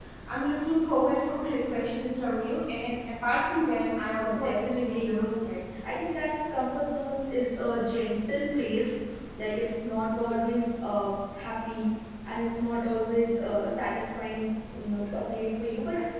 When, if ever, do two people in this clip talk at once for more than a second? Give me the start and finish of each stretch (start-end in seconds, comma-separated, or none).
4.1-5.3